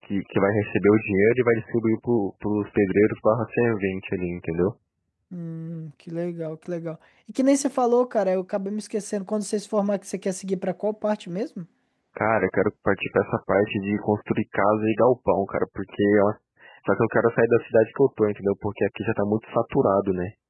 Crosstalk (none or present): none